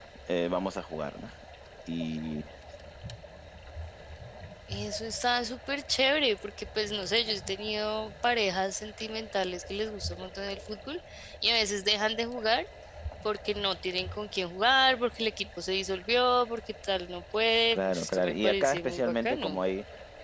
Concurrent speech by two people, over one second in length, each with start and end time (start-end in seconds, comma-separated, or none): 17.7-19.6